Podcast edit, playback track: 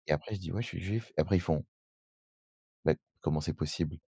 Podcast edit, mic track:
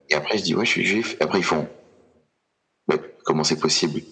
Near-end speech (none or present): none